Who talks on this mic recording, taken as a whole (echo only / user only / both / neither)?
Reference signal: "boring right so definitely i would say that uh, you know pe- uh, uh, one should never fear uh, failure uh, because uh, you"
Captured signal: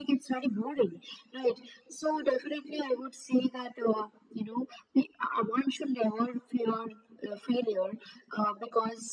echo only